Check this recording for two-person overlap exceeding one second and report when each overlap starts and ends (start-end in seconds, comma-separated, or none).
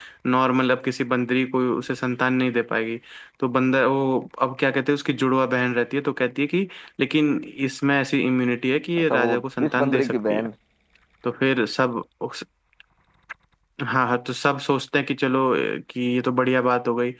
9.1-10.5